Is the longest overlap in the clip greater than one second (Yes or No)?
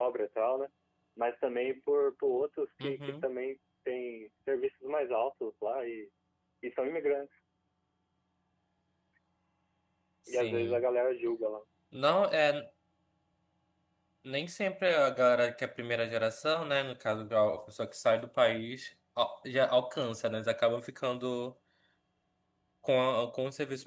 No